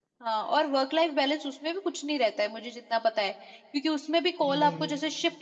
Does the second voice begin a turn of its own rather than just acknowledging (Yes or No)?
No